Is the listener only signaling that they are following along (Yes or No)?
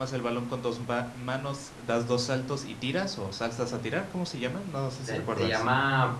No